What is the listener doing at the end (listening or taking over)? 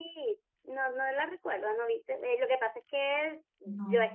listening